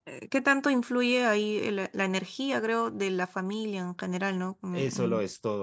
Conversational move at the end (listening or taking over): taking over